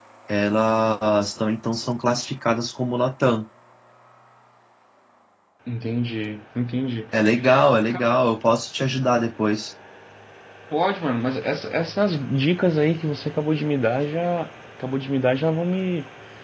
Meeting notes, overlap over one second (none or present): none